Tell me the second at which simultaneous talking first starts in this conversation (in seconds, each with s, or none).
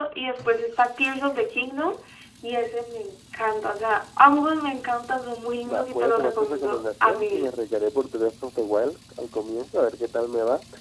5.6 s